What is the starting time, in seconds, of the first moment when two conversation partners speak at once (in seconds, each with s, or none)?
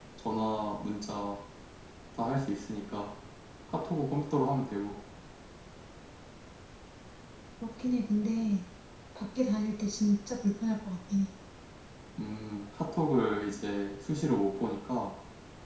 none